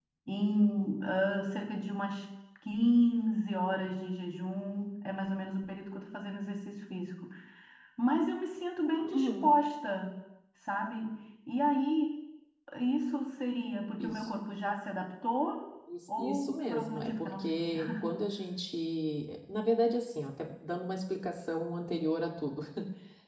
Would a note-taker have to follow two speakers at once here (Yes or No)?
Yes